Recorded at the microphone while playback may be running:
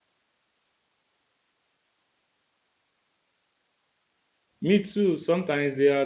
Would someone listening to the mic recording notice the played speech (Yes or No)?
No